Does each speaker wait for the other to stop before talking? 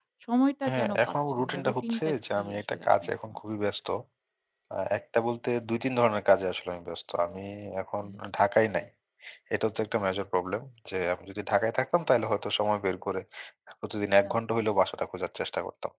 No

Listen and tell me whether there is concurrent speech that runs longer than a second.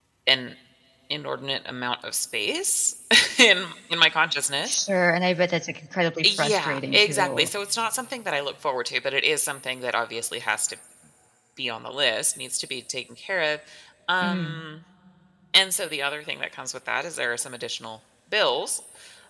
Yes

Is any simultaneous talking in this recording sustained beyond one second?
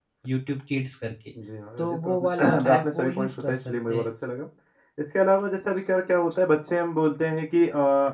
Yes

